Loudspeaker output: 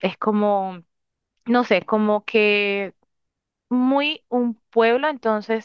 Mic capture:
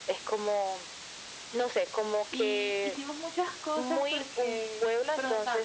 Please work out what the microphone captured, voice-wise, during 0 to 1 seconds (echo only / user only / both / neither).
echo only